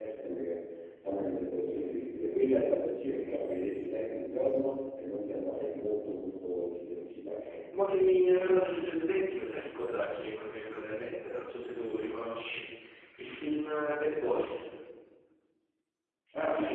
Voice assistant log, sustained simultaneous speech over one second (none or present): none